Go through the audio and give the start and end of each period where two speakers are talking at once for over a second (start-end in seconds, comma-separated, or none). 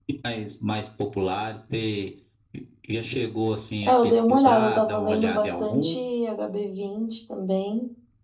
3.9-6.0